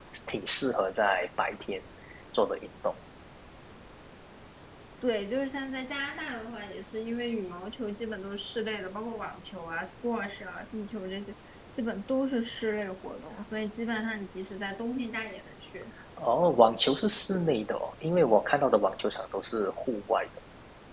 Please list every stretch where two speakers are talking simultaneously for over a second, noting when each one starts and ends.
none

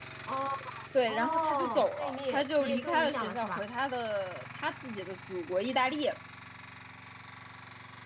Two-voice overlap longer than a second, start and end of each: 1.1-3.6

